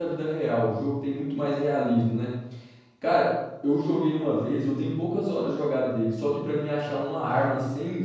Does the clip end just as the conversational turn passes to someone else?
No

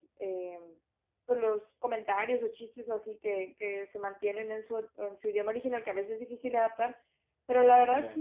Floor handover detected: No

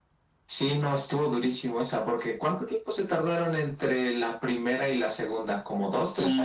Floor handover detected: Yes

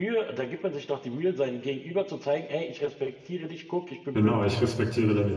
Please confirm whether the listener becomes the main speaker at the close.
Yes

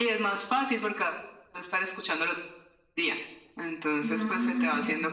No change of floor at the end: Yes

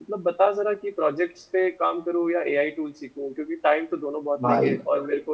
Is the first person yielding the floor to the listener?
No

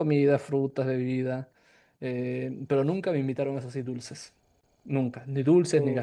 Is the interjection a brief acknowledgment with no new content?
Yes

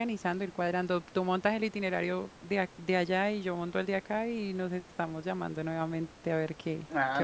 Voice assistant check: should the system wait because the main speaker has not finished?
No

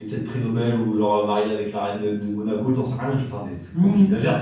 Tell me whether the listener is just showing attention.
No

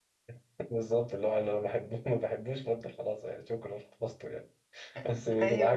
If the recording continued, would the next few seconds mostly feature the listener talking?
No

